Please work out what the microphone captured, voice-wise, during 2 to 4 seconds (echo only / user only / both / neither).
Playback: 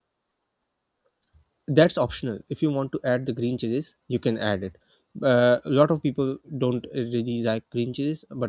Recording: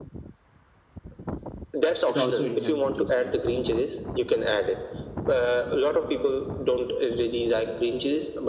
both